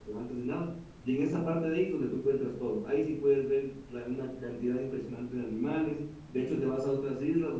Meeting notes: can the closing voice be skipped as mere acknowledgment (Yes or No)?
Yes